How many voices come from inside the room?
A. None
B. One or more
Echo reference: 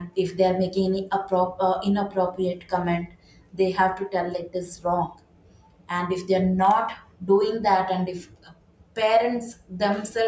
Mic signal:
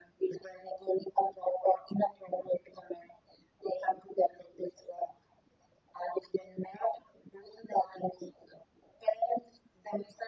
A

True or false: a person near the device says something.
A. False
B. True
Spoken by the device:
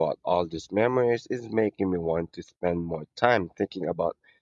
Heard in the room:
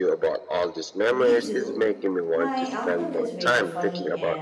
B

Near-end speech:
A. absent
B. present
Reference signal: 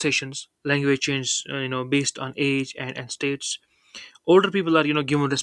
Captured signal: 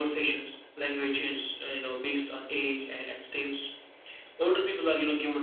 A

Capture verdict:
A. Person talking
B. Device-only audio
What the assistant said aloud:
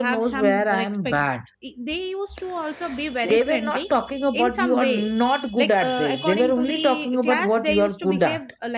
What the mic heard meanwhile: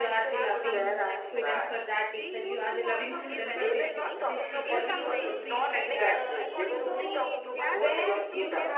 A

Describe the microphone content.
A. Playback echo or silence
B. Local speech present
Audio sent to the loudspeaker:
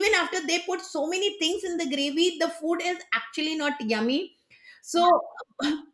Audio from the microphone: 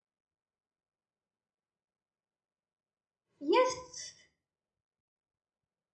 B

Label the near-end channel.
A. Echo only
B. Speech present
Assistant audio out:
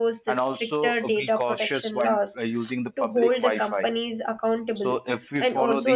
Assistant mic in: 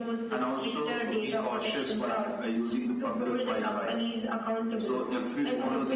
A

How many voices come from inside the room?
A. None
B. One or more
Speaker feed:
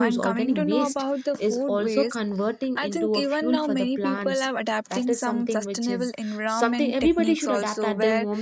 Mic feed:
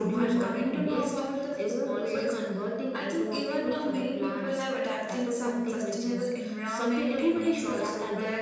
A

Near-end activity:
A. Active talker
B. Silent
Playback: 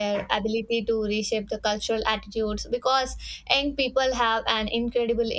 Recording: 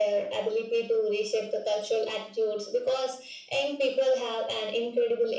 B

